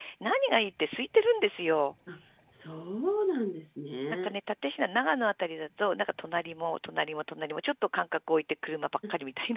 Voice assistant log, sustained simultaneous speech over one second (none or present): none